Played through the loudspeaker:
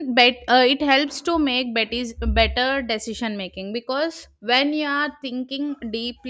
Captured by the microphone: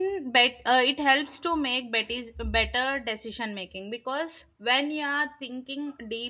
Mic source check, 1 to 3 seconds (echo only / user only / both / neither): echo only